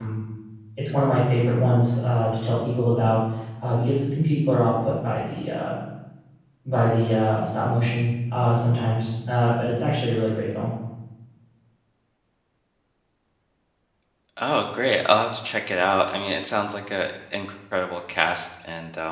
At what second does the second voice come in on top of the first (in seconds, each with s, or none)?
none